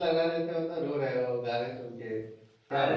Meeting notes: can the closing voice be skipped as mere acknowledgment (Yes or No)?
No